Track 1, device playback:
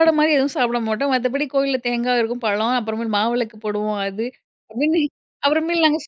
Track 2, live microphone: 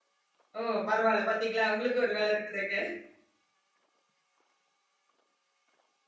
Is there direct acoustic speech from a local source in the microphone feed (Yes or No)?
Yes